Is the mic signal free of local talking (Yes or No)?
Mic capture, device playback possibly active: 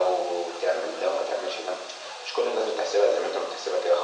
Yes